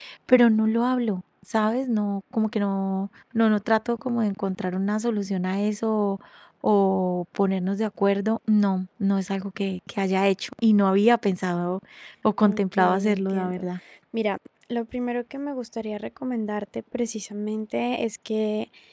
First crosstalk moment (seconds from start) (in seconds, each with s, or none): 12.4 s